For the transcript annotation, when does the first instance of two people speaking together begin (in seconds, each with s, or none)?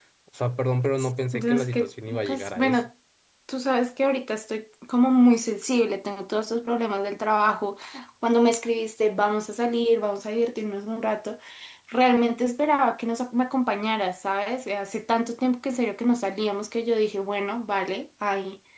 1.3 s